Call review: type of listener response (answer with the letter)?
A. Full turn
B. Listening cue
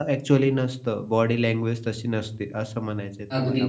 A